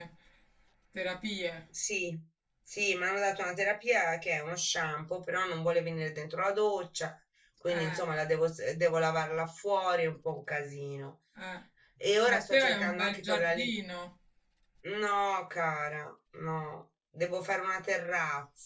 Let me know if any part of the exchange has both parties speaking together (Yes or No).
Yes